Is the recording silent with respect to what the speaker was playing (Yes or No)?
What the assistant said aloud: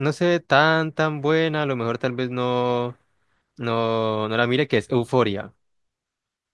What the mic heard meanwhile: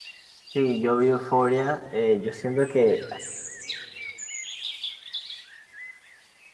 Yes